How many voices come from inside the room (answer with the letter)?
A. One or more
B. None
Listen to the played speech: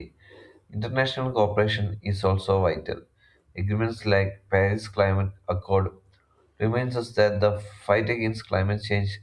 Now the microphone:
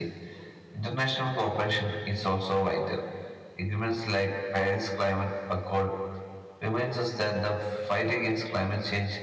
B